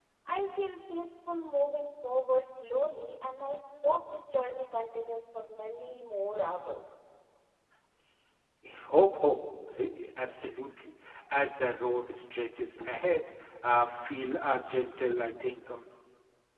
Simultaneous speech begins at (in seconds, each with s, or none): none